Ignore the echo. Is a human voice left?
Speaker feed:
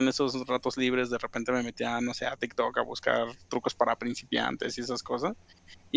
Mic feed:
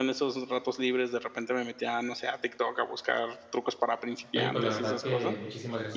Yes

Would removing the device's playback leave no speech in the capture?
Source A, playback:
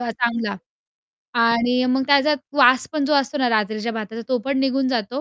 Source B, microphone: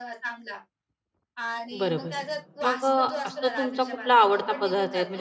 No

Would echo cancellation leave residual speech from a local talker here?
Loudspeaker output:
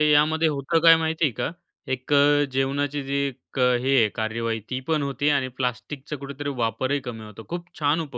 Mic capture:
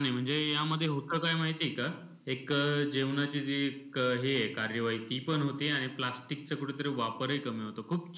No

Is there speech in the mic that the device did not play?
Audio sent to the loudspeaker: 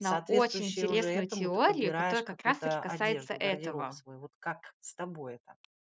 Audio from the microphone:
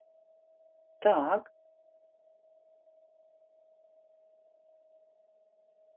Yes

